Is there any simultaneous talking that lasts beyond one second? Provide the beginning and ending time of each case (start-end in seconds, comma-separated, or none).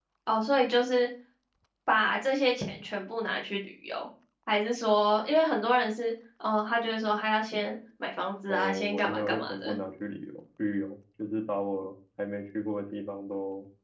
8.5-9.8